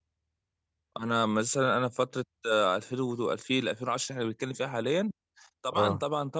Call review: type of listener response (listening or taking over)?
listening